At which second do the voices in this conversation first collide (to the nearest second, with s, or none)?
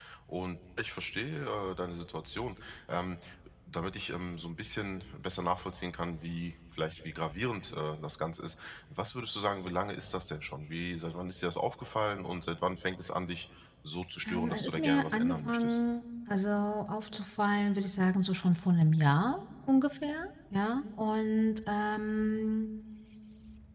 14 s